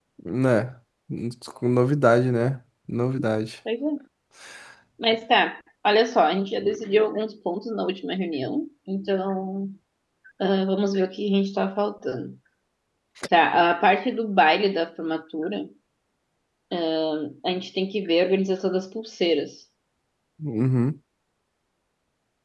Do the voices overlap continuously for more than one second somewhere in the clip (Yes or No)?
No